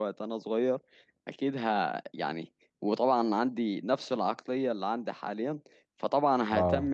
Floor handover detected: No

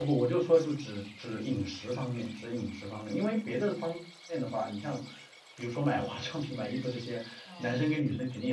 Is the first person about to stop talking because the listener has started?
No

